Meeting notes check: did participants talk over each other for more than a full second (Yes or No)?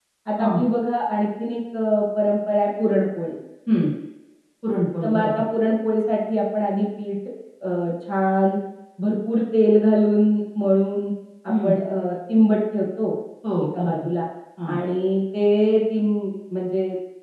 No